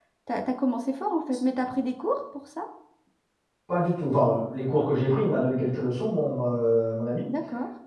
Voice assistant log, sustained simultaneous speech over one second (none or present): none